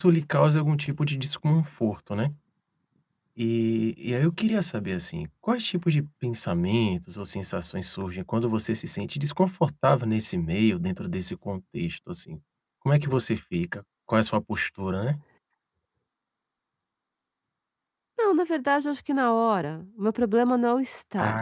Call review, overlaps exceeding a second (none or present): none